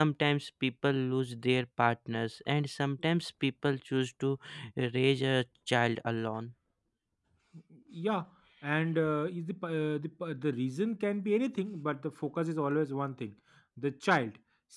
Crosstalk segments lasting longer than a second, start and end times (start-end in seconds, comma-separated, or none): none